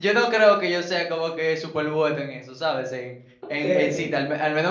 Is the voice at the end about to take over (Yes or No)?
No